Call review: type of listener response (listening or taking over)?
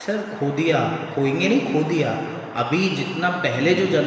listening